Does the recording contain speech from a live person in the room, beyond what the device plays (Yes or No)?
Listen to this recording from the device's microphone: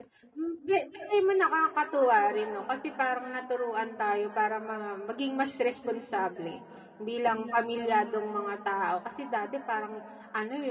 Yes